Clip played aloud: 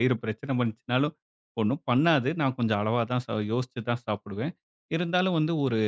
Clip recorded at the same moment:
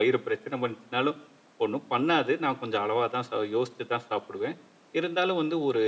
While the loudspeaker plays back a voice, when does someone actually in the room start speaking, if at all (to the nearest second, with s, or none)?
none